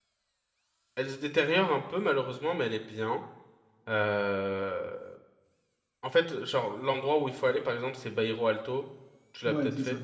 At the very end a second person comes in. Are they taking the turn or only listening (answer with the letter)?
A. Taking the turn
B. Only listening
A